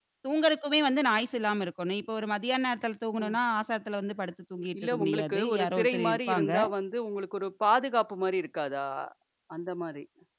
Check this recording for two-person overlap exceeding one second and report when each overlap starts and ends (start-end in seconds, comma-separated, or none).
4.8-6.5